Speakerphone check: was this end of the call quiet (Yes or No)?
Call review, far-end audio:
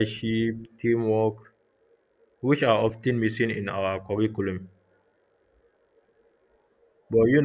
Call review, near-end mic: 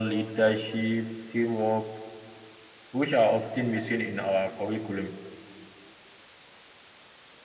Yes